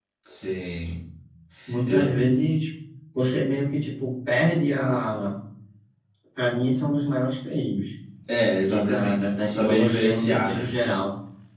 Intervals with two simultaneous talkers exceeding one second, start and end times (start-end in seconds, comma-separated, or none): 8.6-10.7